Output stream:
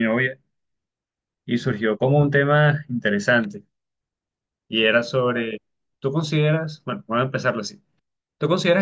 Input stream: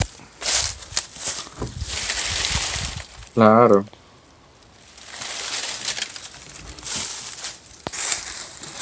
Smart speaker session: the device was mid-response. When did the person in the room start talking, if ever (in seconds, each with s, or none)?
3.3 s